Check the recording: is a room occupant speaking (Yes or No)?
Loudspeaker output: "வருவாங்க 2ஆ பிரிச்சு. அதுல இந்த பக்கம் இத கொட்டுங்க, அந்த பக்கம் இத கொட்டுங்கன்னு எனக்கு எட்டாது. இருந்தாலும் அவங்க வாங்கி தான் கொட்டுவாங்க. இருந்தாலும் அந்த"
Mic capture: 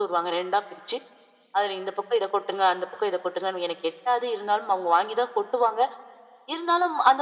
No